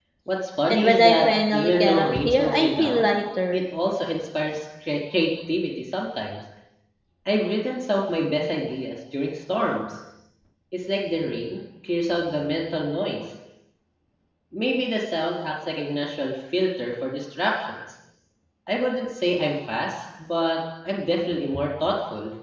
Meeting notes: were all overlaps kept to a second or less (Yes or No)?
No